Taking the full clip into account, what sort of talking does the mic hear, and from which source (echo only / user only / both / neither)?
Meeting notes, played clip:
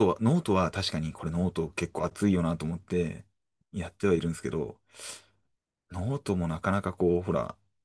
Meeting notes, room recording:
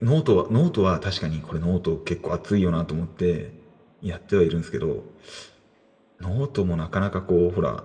echo only